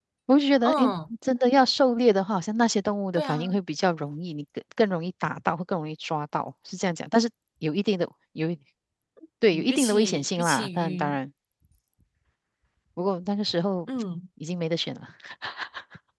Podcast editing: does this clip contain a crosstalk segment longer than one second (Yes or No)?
Yes